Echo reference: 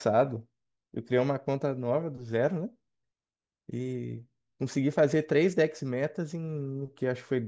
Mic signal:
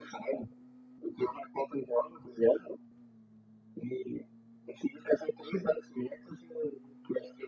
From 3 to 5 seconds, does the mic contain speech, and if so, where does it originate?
echo only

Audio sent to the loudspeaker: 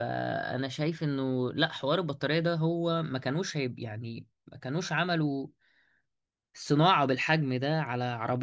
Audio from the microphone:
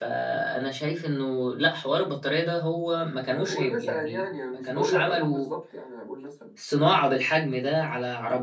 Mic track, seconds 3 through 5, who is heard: both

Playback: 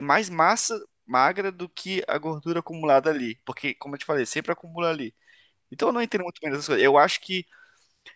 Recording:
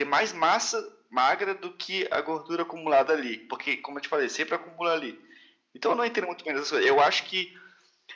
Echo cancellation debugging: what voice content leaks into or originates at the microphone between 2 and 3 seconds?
echo only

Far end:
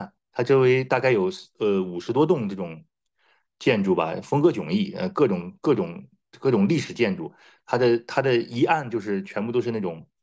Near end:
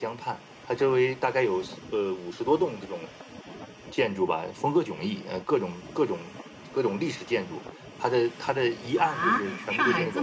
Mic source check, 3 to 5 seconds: echo only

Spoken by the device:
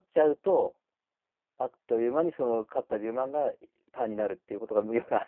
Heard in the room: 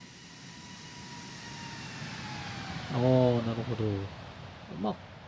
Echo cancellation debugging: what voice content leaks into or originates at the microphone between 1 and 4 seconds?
user only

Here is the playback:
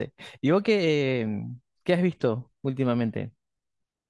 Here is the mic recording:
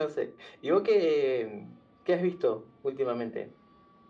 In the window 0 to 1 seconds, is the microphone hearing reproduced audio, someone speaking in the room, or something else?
echo only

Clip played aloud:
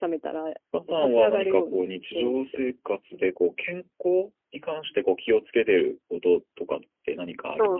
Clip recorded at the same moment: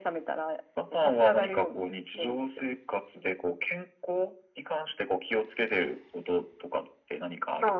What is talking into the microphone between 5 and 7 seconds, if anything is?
echo only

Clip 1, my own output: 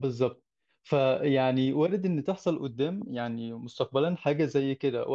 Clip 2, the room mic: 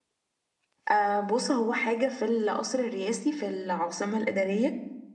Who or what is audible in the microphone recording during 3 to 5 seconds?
user only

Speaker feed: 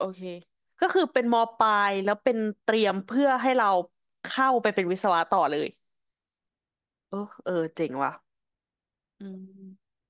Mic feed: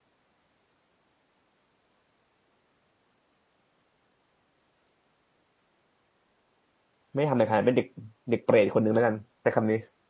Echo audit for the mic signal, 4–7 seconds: neither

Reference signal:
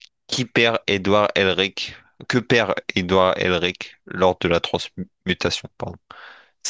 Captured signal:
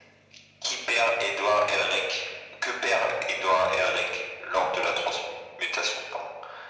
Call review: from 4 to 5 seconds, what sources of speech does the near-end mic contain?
echo only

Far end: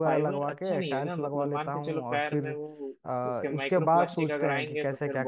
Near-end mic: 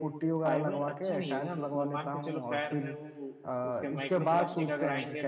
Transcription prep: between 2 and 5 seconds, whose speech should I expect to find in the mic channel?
echo only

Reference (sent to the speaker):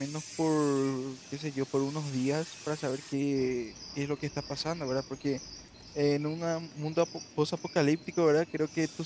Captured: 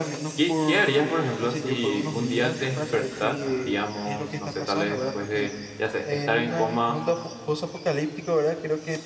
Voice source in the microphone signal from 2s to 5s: both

